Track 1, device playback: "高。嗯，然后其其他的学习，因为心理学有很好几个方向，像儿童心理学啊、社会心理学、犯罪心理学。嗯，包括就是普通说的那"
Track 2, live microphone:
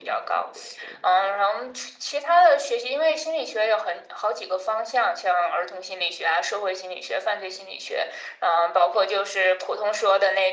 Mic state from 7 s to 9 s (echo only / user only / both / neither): echo only